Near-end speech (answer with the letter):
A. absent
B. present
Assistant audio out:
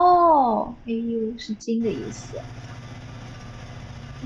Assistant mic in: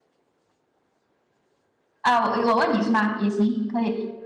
B